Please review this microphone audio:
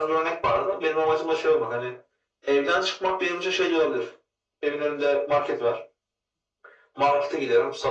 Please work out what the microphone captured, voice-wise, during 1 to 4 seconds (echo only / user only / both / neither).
echo only